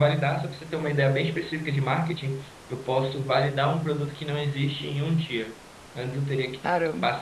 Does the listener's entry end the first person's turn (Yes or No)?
No